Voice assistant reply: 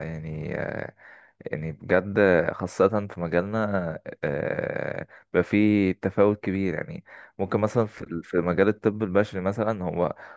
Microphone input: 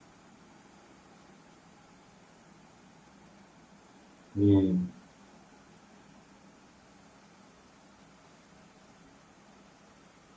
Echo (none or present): none